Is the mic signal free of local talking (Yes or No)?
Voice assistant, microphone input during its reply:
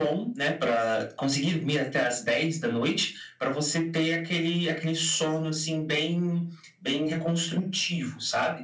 Yes